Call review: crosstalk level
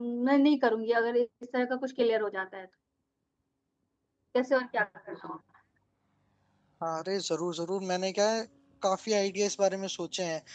none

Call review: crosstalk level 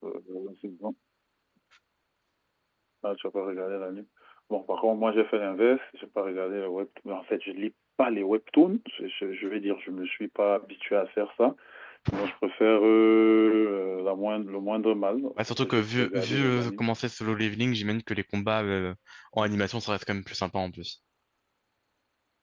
present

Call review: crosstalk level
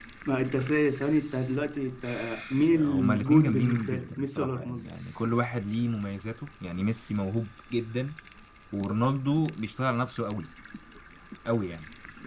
present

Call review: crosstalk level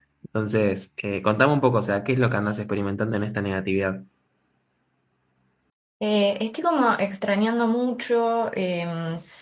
none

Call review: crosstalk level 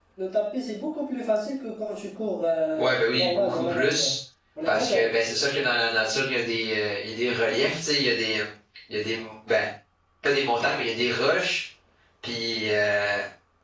present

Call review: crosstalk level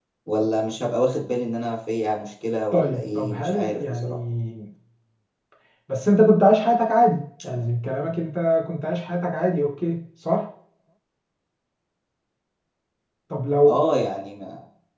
present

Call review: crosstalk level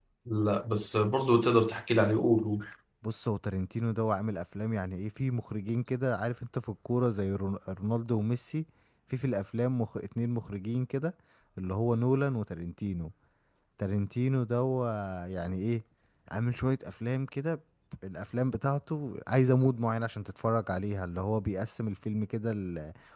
none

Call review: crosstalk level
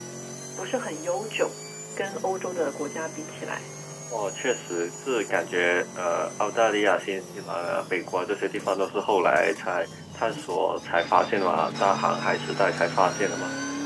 none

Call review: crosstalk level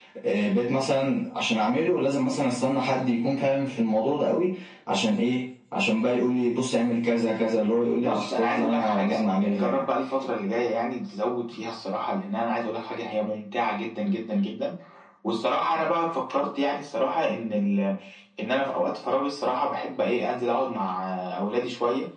present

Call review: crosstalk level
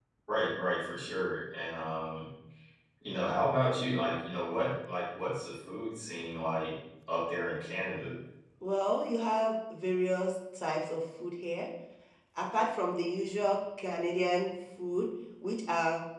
none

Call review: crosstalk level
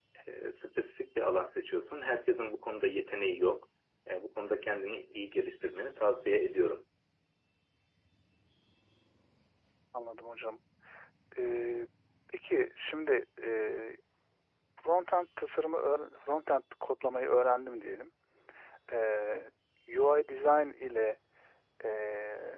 none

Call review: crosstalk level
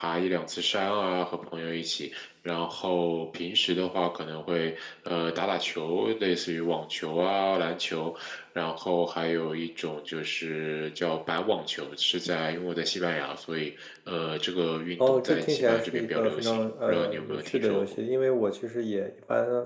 present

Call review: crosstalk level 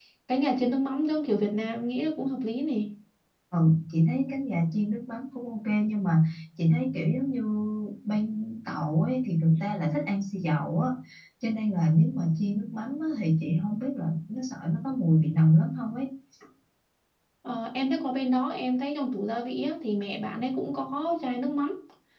none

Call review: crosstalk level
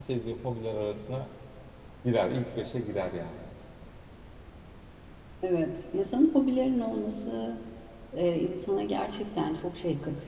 none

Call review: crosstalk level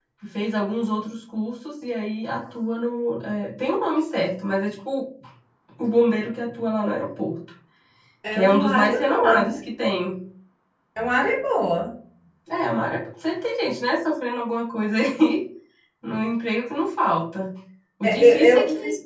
present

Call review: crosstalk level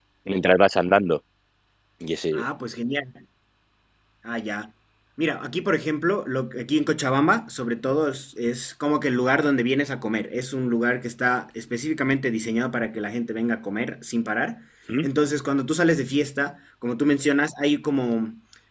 none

